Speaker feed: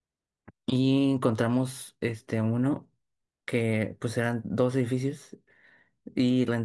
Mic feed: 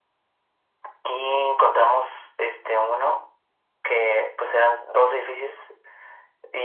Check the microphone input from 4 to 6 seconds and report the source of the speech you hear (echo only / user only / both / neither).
echo only